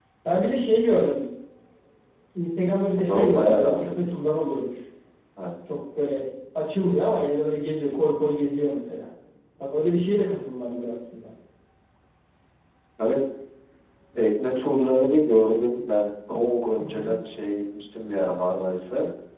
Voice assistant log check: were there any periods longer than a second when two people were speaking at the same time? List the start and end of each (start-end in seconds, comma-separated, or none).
3.0-4.3